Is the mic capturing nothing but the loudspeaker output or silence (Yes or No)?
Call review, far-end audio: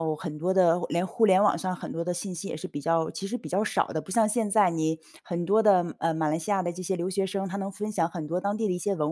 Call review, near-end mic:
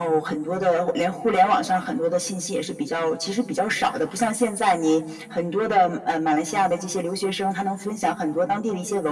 Yes